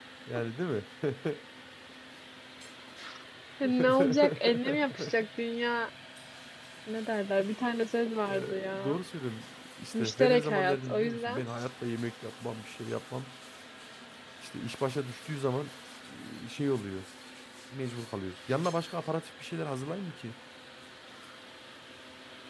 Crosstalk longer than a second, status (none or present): present